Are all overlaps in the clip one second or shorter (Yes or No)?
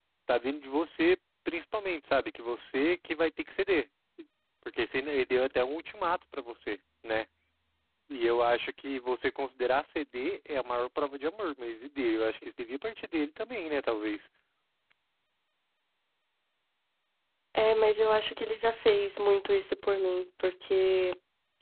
Yes